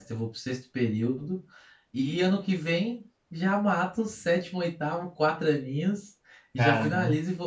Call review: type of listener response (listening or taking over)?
listening